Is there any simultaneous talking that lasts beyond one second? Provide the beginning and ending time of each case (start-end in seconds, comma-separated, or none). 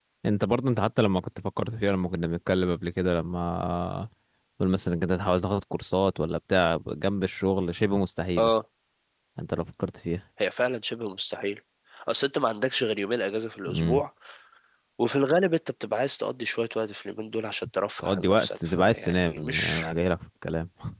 18.0-19.8